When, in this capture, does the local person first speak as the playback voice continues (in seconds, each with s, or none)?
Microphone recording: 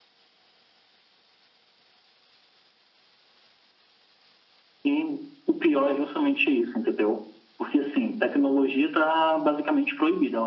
none